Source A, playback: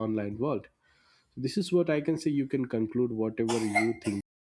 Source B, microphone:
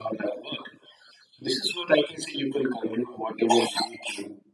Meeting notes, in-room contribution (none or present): none